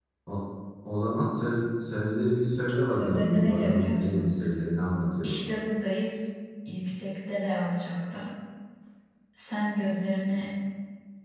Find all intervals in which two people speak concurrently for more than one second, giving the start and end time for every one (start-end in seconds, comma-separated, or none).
2.9-4.3